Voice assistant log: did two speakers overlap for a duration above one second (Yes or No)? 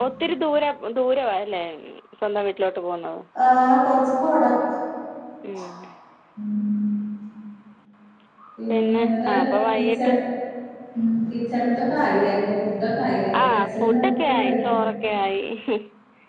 Yes